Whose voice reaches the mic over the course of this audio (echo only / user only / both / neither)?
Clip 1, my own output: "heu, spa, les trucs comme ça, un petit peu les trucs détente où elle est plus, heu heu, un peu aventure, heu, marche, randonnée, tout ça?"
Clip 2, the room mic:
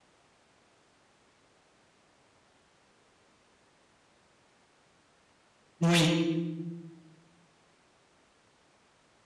user only